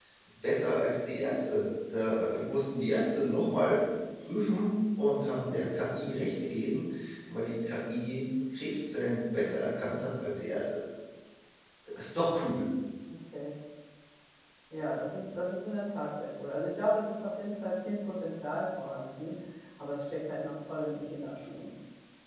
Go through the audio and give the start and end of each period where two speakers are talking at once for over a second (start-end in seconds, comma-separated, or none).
none